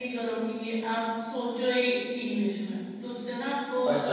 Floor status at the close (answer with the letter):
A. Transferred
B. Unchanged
B